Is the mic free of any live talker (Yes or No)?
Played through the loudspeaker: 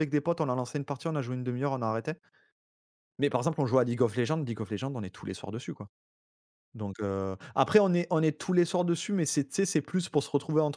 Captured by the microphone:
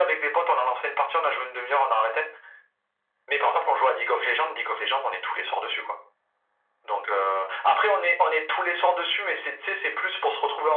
Yes